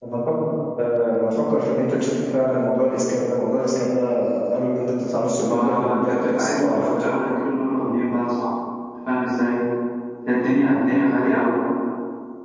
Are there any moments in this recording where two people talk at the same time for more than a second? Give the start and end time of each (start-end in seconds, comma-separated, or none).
5.4-7.1